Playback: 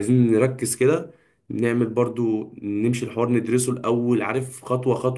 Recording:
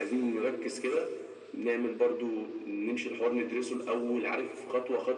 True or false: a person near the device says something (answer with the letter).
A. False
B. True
A